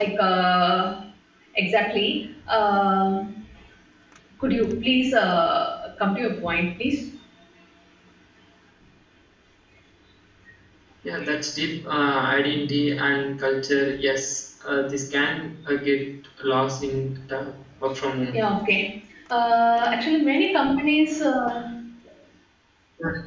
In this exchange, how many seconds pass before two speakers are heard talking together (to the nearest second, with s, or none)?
none